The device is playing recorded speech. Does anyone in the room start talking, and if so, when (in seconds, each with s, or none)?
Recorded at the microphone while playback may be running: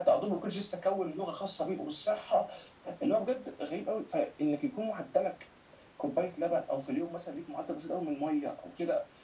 none